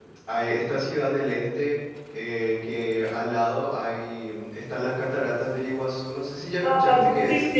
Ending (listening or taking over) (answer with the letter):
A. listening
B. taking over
B